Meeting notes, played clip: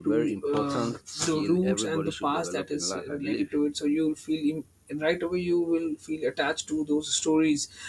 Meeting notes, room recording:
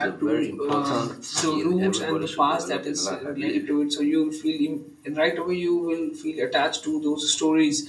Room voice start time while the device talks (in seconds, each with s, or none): none